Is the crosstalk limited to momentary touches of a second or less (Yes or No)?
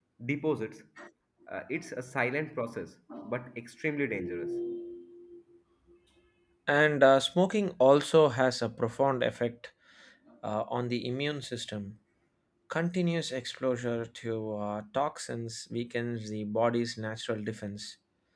Yes